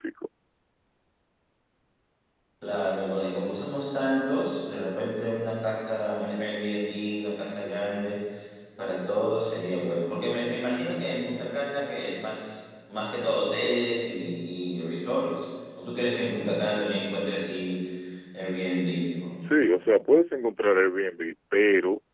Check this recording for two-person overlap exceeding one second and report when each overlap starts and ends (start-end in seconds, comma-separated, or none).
none